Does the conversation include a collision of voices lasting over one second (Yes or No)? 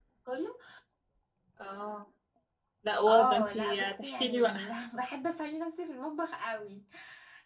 Yes